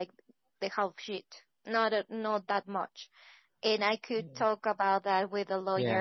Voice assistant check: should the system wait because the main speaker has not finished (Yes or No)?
Yes